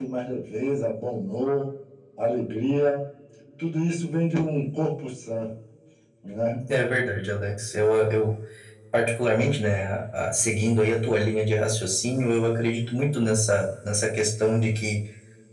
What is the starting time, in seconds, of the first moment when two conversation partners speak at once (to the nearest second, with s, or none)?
none